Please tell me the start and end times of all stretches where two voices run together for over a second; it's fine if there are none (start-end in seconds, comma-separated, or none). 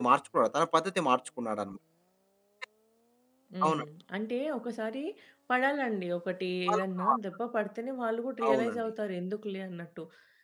none